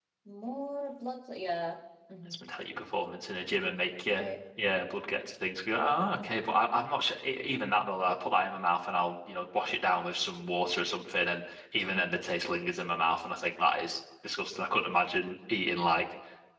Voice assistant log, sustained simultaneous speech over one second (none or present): none